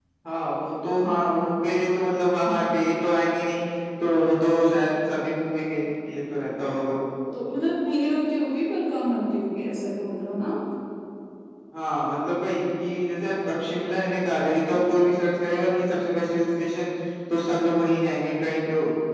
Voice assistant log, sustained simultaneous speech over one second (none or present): none